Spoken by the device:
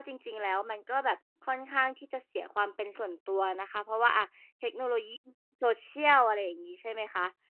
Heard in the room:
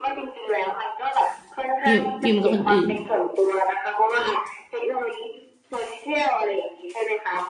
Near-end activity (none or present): present